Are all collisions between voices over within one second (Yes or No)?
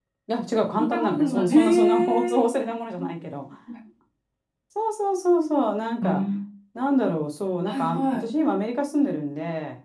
No